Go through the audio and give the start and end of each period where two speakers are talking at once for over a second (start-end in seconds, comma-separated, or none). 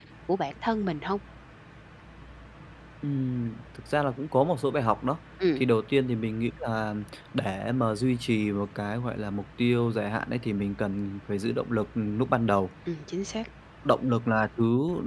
none